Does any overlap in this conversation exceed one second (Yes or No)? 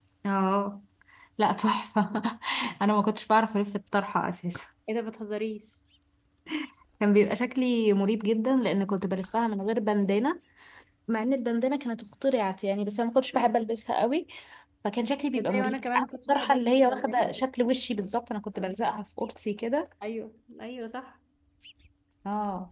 Yes